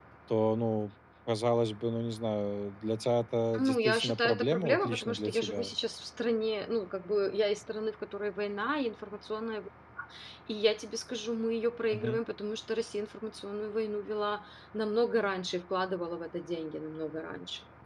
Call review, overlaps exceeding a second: present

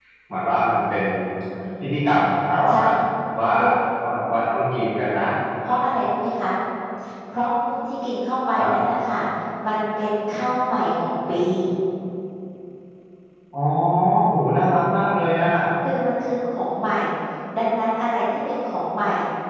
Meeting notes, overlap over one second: none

